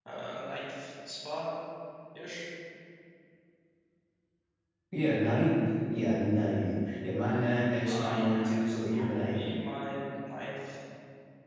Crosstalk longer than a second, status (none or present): present